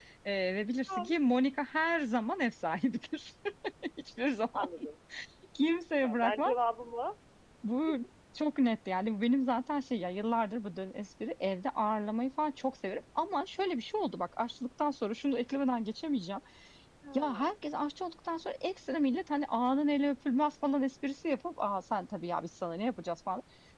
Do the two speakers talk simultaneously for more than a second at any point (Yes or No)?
No